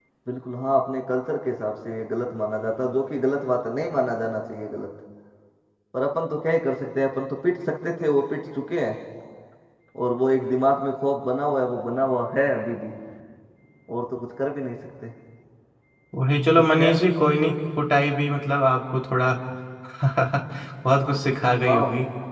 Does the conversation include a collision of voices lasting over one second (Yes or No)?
No